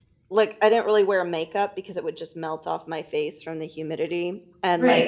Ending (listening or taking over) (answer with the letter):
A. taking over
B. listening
A